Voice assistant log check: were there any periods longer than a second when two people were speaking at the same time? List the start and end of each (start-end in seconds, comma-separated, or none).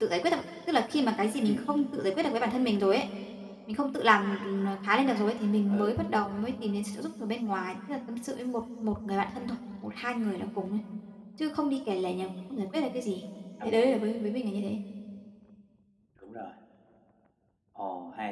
none